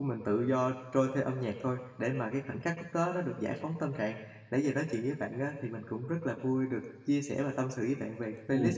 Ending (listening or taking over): taking over